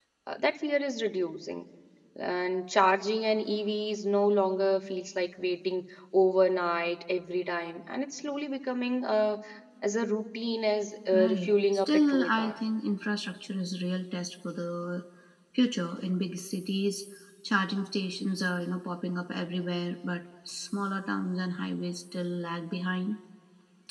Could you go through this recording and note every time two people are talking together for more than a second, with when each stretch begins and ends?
11.1-12.6

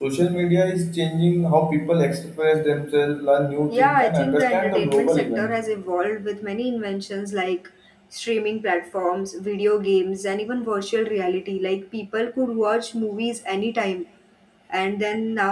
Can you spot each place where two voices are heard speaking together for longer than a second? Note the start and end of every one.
3.7-5.5

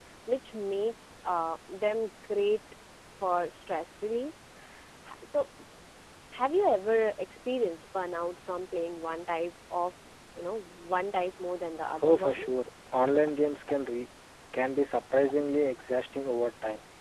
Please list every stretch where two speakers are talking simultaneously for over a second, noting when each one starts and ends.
none

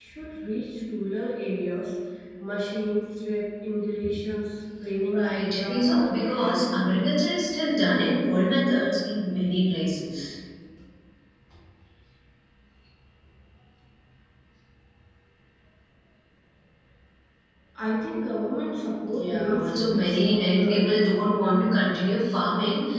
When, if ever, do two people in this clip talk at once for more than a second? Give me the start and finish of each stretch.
5.2-6.7, 19.1-20.9

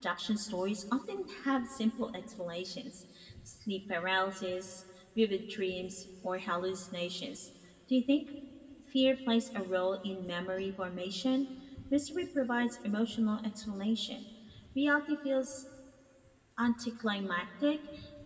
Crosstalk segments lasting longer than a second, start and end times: none

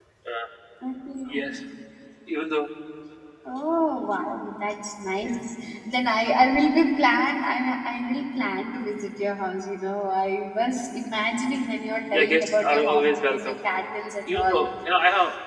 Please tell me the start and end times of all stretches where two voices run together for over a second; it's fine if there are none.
12.1-13.5

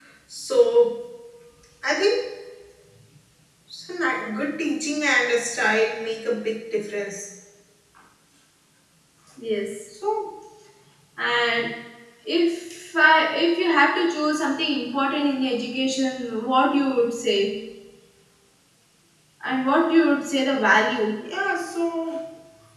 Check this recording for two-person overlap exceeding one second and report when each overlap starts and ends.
none

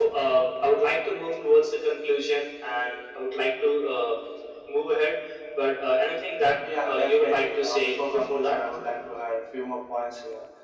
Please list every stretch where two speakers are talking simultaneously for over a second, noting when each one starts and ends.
6.8-8.6

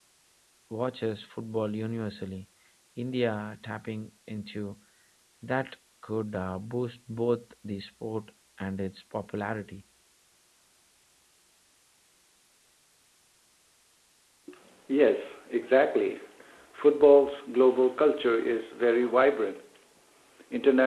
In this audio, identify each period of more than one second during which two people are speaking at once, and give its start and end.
none

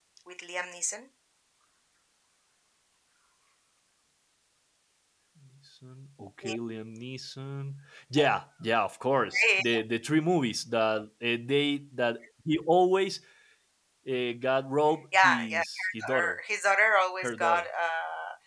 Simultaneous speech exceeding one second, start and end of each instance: 15.2-16.4

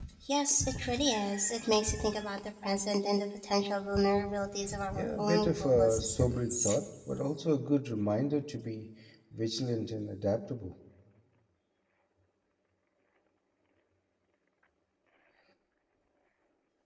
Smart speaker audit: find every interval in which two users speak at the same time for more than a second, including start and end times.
4.9-6.8

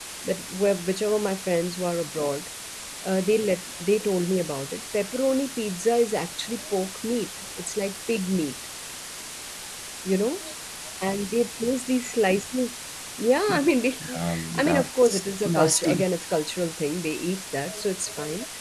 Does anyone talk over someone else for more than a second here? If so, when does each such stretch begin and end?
14.1-16.1

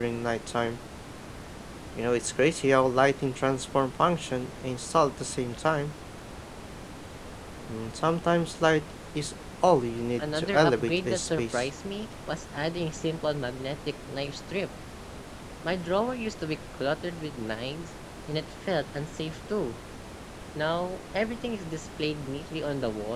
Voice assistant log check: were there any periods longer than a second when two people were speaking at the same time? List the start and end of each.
10.2-11.7

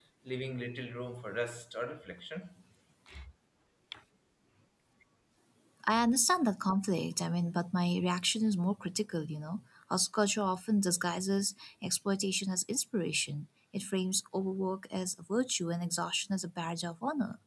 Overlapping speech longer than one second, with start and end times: none

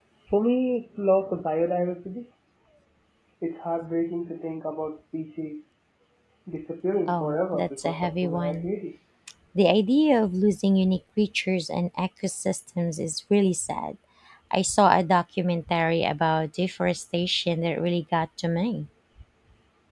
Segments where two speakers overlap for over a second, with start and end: 7.1-8.7

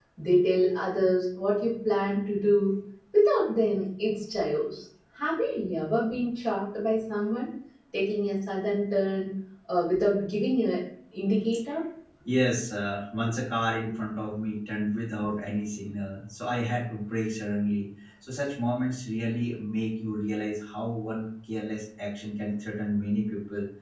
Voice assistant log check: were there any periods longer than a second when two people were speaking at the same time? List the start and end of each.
none

